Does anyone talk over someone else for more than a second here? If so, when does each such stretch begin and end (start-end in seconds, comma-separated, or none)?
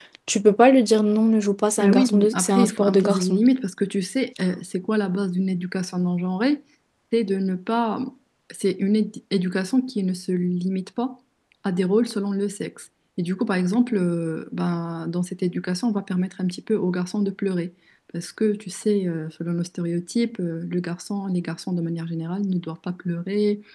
1.8-3.4